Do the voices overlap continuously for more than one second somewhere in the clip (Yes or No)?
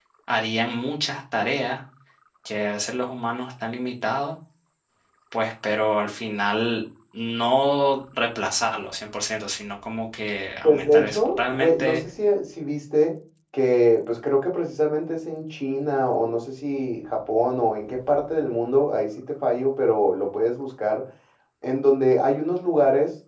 Yes